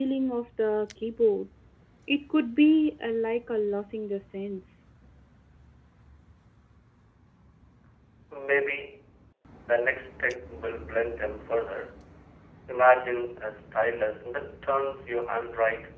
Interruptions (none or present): none